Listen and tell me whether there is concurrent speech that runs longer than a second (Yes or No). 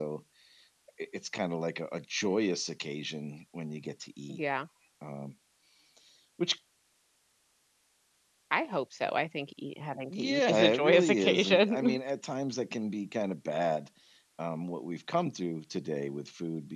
Yes